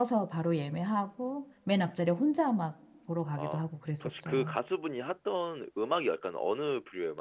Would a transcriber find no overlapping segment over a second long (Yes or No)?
Yes